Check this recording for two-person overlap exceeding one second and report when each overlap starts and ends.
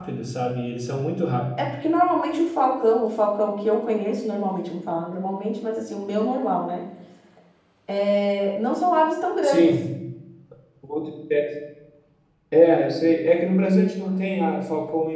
none

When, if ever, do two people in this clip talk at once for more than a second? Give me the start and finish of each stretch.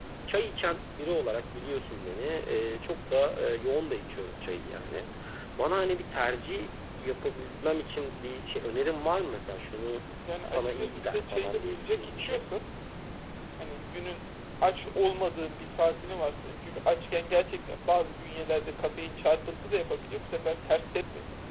10.5-12.4

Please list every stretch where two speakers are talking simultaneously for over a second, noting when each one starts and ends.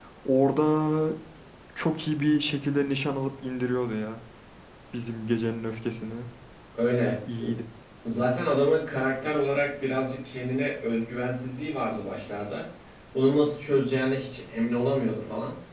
none

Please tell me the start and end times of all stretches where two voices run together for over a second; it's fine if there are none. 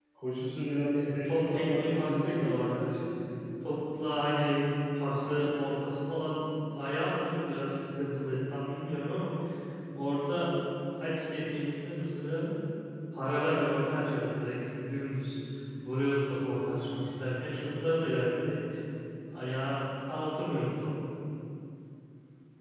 0.9-2.9

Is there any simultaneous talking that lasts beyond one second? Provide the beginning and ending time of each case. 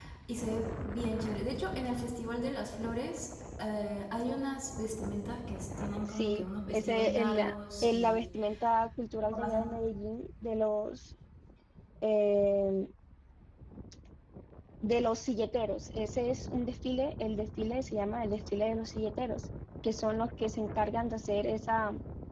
6.1-8.3

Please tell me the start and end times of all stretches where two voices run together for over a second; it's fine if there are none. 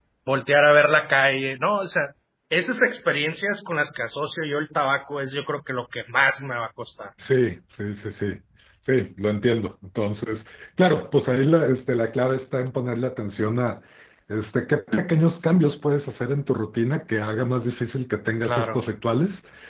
none

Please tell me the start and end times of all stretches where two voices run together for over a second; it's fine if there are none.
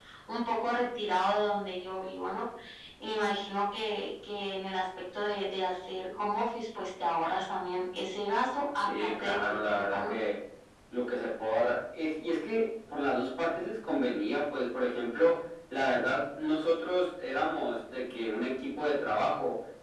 8.8-10.1

